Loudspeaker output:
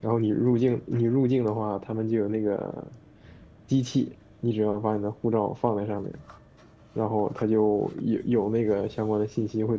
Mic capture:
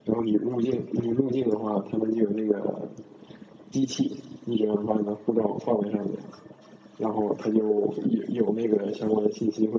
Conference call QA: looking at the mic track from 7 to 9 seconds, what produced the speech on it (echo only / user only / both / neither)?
echo only